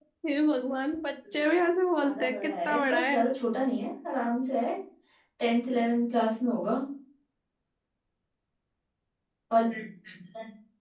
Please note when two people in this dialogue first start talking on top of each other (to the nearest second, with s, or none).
2 s